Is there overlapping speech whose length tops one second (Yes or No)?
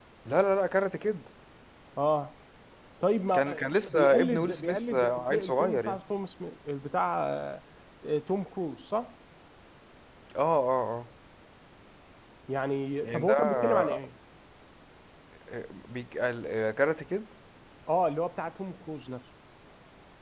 Yes